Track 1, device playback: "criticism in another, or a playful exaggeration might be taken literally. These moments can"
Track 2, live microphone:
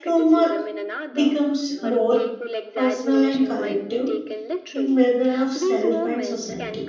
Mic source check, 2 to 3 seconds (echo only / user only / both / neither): both